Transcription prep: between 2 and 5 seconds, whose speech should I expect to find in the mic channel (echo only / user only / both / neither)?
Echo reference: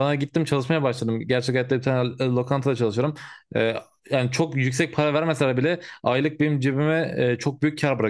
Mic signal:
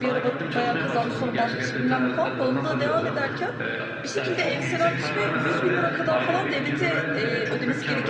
both